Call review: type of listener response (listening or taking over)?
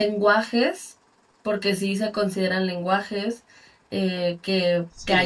taking over